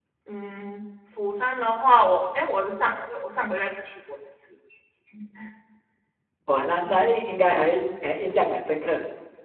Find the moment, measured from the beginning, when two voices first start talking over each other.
none

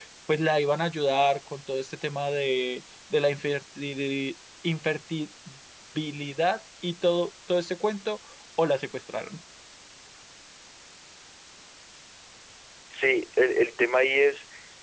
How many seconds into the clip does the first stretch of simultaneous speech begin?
none

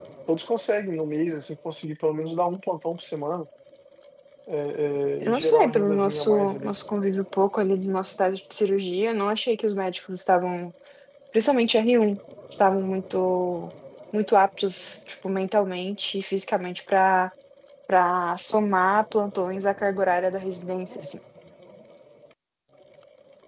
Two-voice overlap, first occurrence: 5.2 s

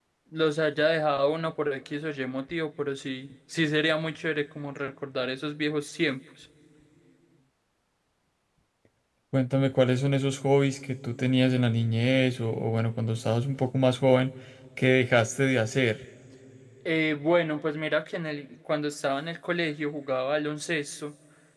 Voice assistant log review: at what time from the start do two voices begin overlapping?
none

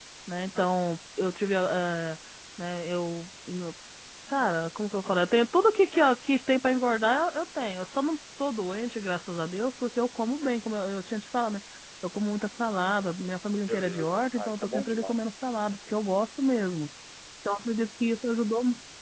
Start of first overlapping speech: 13.6 s

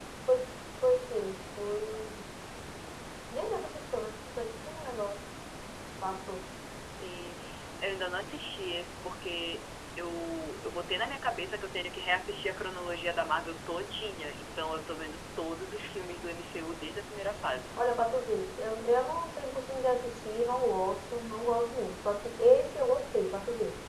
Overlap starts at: none

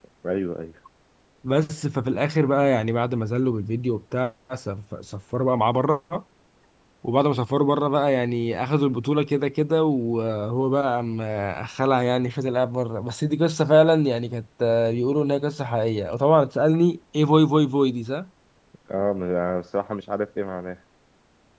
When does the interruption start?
none

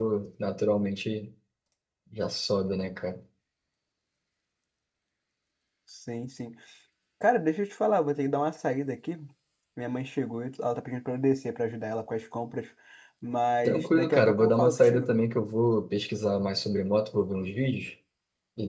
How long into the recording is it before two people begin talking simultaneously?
13.7 s

